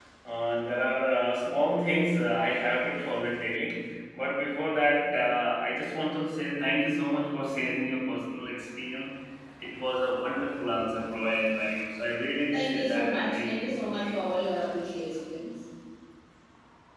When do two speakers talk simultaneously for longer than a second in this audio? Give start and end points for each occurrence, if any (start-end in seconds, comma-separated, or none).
12.5-14.2